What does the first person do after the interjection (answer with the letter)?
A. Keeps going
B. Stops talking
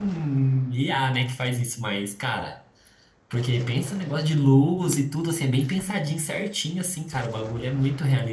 B